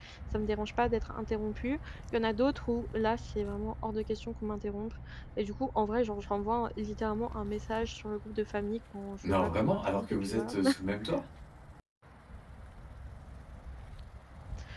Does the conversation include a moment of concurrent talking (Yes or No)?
Yes